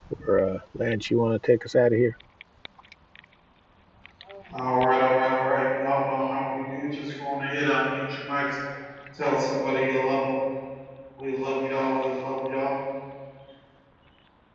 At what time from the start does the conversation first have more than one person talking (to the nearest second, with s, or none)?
none